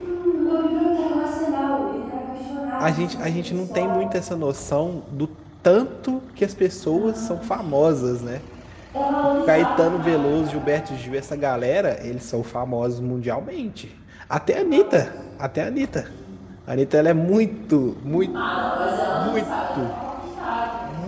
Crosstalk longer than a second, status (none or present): present